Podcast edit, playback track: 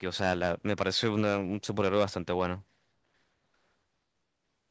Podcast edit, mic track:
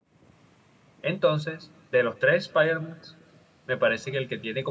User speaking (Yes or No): Yes